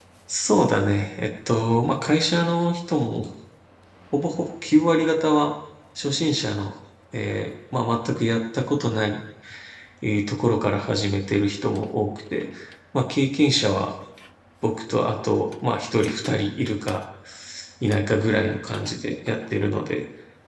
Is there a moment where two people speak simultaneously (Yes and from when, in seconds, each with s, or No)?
No